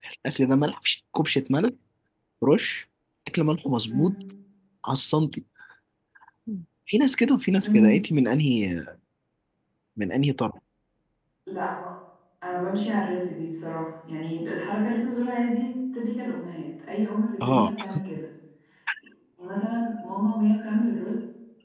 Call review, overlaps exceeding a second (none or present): none